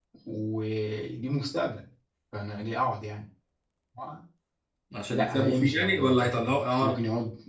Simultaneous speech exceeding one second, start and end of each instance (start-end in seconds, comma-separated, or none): 5.1-7.0